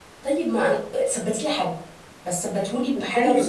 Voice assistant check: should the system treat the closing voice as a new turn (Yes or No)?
Yes